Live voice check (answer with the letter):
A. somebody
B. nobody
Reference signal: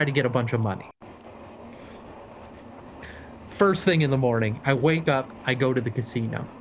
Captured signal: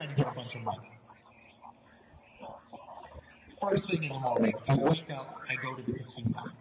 B